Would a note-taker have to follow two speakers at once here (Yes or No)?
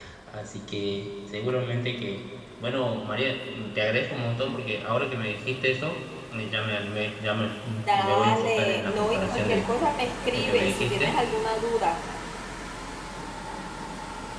Yes